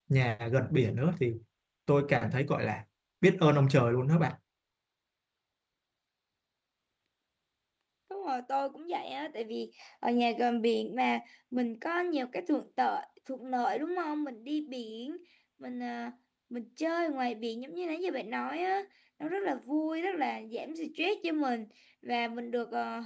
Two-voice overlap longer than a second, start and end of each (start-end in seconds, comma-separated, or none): none